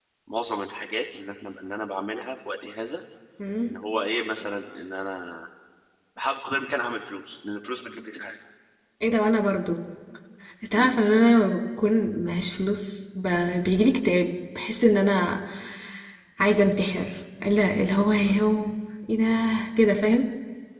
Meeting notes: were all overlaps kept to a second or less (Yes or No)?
Yes